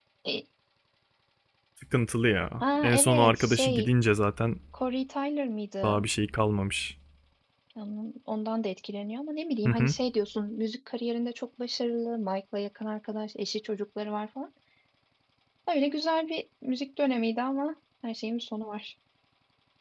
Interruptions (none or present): present